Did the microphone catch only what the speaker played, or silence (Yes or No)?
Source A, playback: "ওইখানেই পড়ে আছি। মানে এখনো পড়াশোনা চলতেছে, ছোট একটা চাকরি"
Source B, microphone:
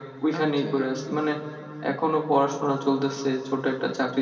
No